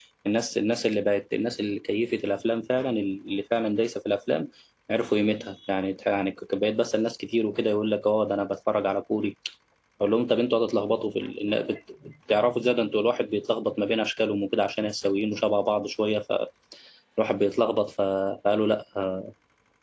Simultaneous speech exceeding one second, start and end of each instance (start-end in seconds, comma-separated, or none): none